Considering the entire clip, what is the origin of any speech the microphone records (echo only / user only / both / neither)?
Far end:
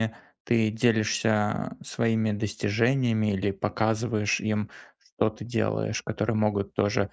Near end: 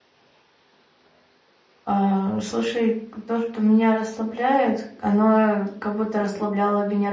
user only